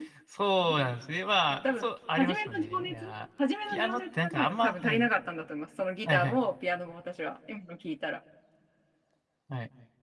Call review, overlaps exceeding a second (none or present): present